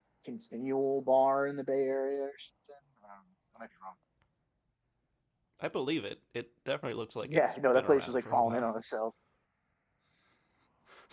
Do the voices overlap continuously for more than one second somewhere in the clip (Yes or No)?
Yes